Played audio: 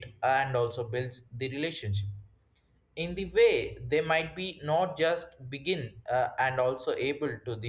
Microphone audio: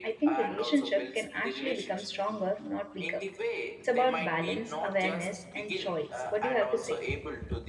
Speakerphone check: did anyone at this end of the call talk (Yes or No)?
Yes